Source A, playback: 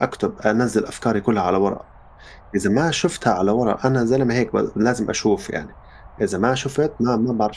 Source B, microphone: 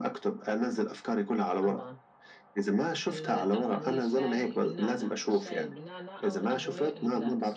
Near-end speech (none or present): present